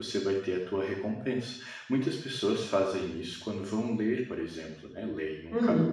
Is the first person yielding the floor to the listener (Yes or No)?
No